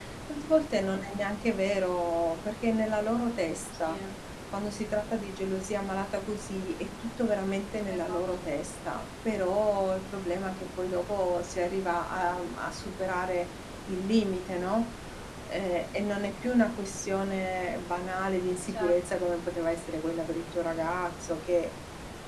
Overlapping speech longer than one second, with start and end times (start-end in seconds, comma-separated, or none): none